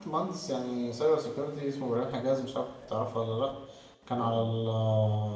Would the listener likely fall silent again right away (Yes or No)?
Yes